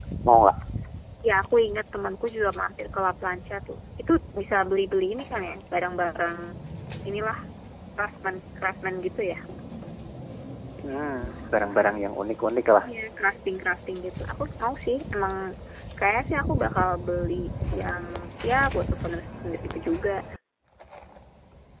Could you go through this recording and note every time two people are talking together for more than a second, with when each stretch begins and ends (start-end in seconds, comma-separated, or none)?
none